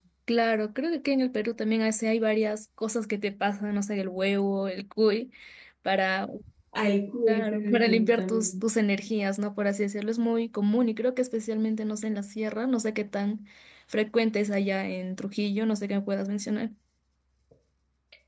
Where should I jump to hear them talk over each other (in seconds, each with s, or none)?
7.3 s